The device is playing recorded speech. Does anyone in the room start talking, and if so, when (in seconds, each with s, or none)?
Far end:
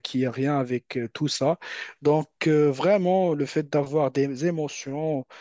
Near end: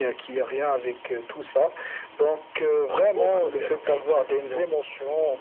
2.8 s